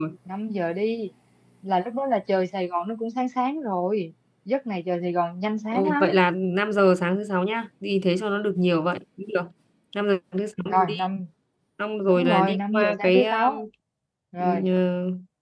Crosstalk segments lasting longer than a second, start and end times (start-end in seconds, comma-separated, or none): 12.0-13.6